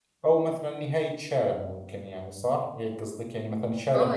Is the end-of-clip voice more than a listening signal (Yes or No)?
Yes